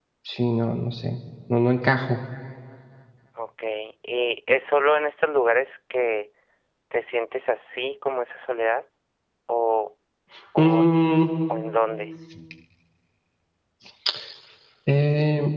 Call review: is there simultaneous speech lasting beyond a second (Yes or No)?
No